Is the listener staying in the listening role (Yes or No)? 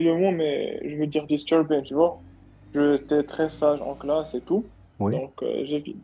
Yes